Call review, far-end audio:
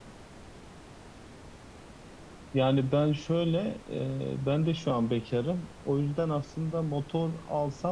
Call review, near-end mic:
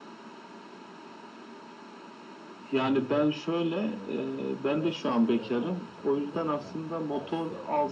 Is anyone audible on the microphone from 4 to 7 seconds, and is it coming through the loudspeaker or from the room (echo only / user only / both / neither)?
both